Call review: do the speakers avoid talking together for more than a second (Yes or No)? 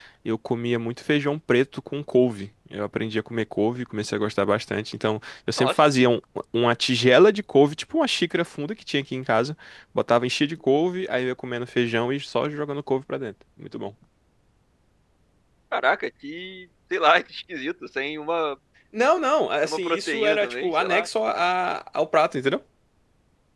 No